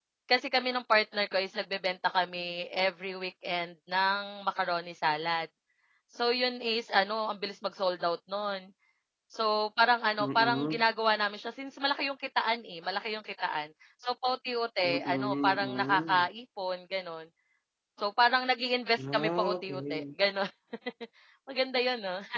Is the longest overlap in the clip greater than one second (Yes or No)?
Yes